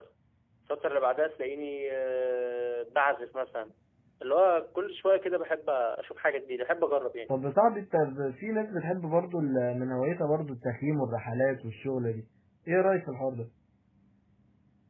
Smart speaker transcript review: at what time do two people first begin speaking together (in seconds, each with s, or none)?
none